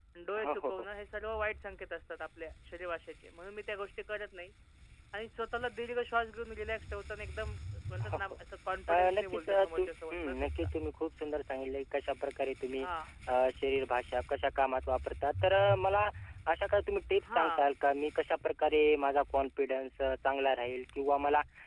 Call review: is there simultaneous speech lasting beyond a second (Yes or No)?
Yes